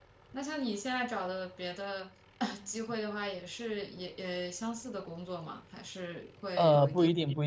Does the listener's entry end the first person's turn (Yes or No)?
Yes